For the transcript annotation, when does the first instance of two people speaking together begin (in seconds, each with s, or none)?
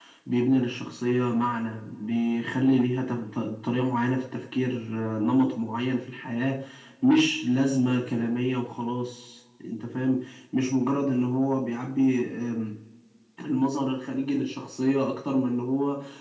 none